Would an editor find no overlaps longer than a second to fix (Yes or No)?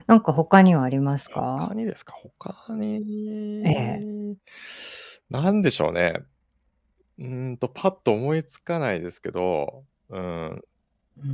Yes